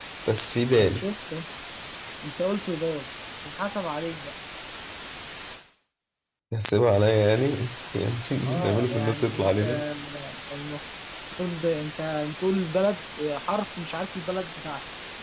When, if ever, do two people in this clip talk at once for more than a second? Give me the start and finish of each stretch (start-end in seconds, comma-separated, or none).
8.5-9.8